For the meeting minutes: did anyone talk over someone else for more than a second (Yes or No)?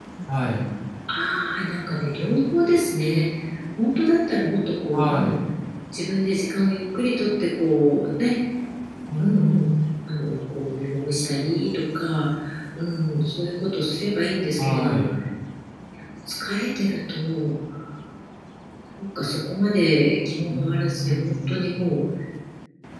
Yes